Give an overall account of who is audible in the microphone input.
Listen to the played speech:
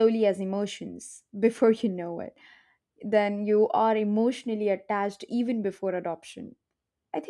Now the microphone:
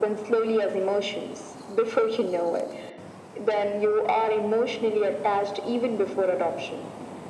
echo only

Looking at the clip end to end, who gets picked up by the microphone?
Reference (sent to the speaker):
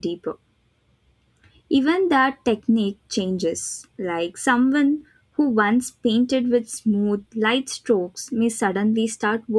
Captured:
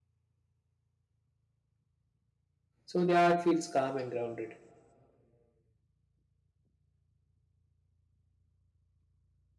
user only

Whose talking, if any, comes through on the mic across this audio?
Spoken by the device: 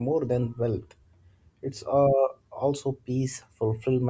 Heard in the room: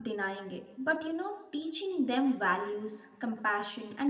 user only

